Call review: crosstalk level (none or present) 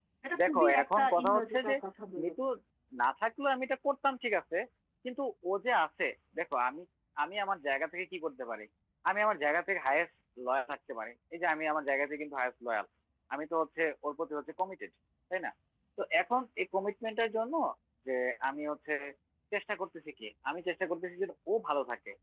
present